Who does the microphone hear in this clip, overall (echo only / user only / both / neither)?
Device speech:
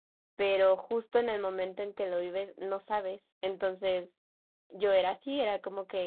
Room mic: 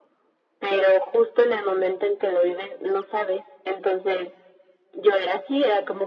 echo only